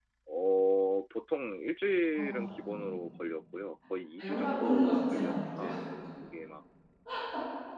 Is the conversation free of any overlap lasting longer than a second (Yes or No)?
No